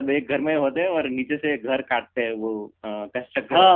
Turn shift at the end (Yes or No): Yes